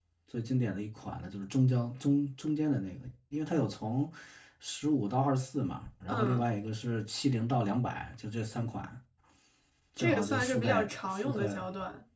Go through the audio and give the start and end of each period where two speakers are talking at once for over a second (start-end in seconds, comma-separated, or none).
10.0-11.6